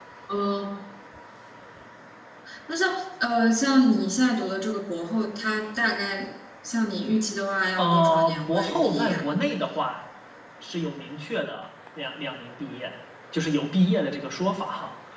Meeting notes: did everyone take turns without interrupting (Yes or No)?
No